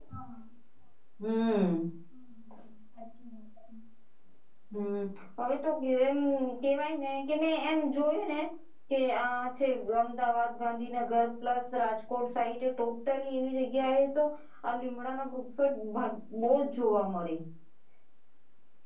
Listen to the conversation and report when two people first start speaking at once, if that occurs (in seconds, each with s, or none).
none